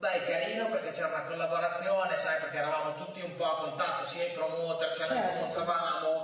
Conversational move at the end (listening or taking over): listening